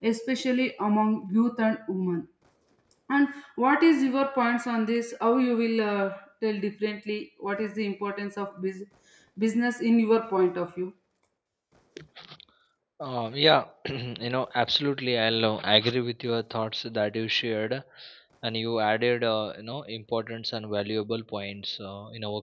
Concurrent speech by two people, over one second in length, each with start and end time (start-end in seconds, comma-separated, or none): none